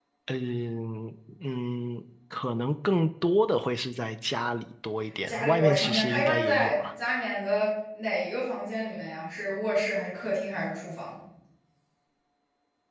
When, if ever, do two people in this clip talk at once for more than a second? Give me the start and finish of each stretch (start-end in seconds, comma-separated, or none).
5.3-6.8